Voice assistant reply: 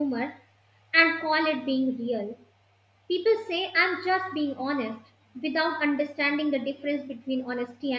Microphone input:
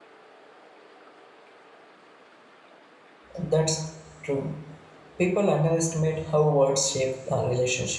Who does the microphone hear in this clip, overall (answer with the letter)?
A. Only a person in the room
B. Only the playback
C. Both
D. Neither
A